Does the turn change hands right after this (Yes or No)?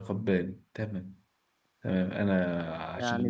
Yes